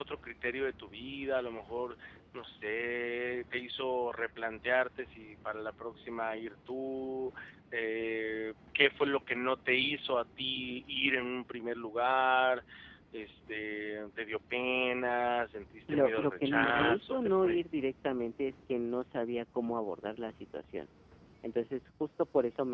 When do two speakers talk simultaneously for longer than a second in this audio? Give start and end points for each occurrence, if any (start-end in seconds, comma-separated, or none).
15.9-17.6